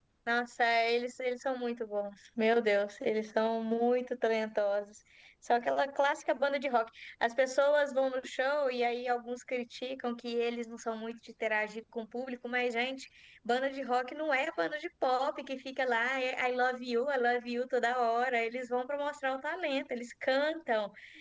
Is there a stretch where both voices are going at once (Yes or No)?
No